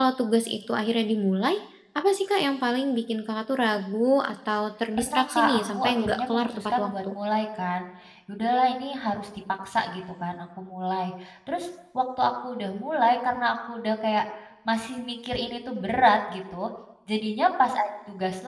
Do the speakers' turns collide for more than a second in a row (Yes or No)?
Yes